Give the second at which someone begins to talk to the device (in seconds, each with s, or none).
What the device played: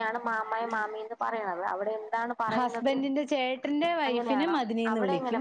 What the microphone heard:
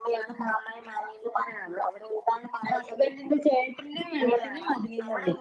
none